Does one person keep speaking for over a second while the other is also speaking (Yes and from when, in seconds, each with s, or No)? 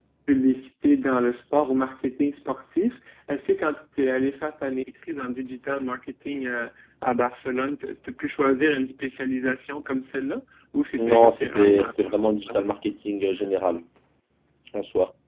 Yes, from 11.0 s